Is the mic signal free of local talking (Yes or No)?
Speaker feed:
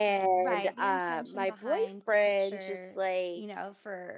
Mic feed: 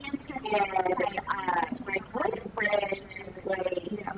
Yes